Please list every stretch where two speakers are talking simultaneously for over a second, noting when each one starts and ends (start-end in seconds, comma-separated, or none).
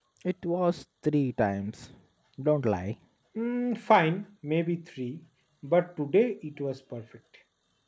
none